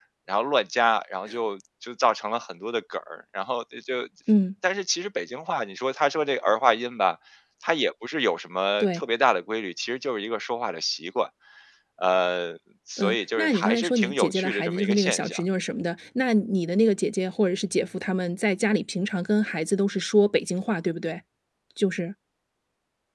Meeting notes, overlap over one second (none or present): present